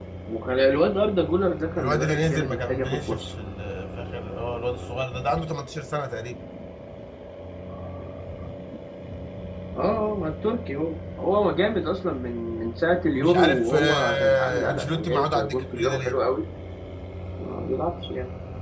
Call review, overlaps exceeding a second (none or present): present